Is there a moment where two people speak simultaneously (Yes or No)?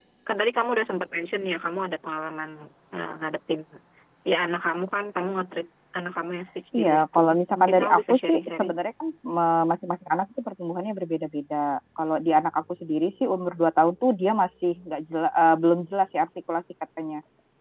Yes